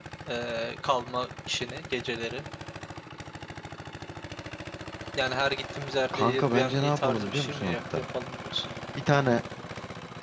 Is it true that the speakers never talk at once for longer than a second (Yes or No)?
No